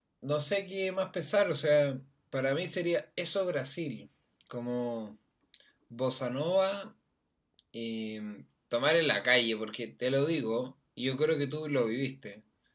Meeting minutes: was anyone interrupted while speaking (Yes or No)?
No